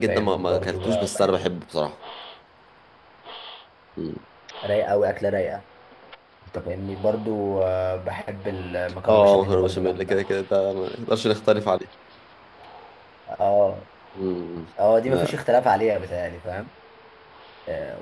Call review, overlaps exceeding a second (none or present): present